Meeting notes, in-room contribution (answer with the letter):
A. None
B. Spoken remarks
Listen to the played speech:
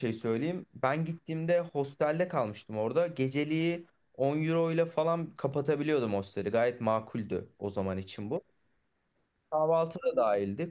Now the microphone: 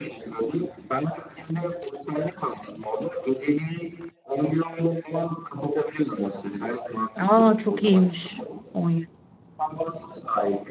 B